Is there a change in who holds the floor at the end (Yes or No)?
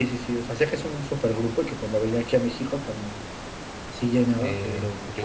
Yes